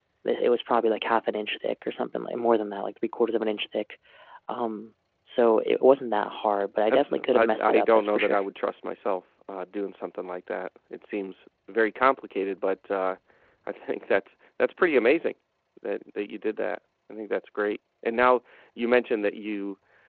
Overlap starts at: 7 s

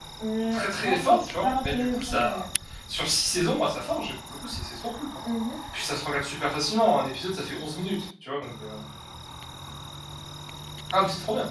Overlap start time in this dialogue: 1 s

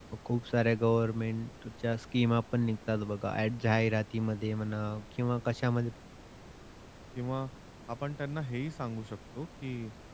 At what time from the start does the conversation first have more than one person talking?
none

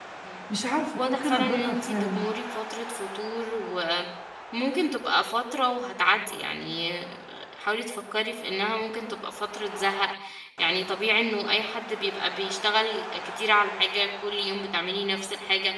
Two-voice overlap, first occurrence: 1 s

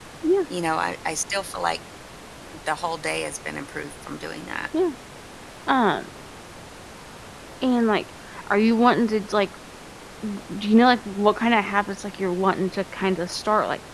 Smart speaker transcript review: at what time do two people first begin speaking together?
none

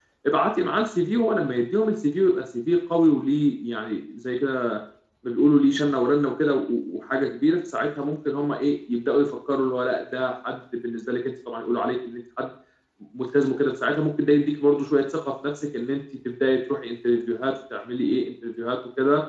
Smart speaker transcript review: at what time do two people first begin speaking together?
none

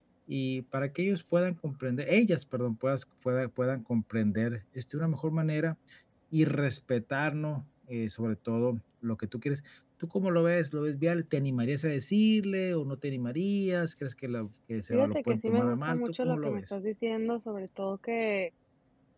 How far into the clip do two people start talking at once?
15 s

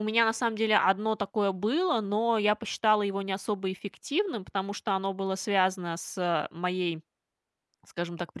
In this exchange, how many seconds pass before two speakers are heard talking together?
none

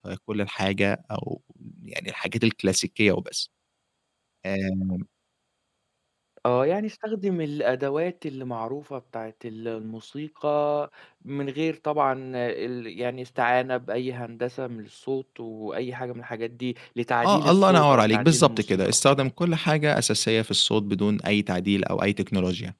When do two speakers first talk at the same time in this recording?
17 s

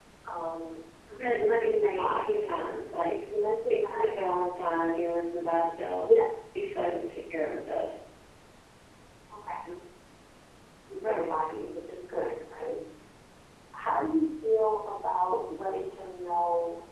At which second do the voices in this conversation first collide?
1 s

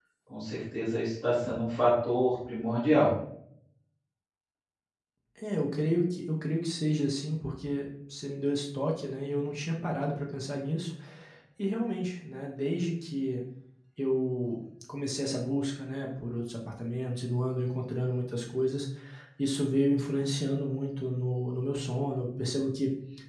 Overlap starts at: none

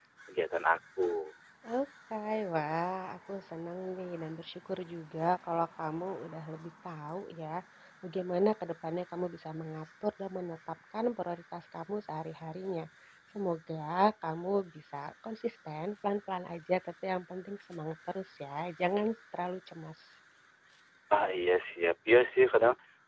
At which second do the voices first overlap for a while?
none

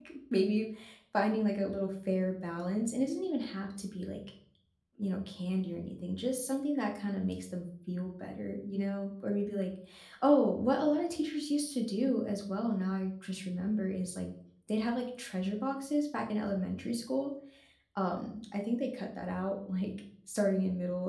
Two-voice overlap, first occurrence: none

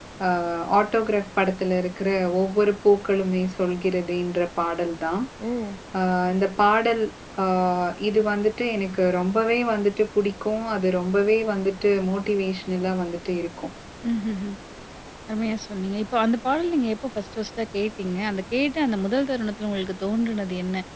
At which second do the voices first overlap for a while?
none

